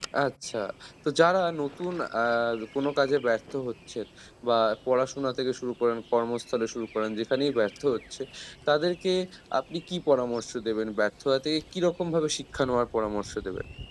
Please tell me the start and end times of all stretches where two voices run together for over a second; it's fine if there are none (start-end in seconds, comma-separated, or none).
none